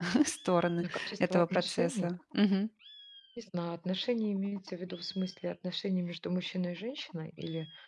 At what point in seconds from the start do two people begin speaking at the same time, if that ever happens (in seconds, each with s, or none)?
0.8 s